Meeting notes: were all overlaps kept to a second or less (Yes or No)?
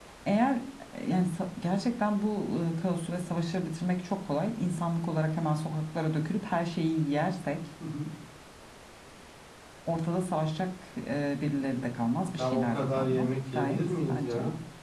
No